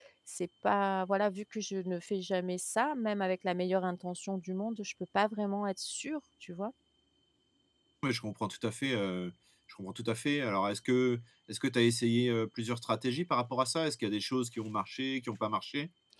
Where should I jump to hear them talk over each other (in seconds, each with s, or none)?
none